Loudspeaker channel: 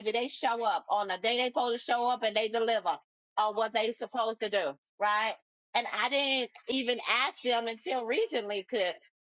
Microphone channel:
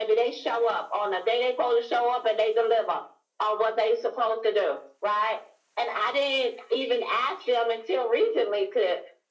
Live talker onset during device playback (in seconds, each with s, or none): none